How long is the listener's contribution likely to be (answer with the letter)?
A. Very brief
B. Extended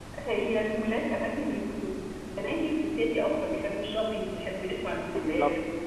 B